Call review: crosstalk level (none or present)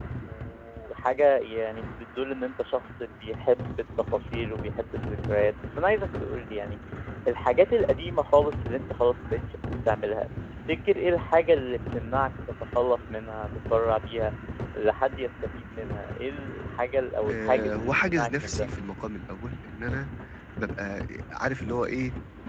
present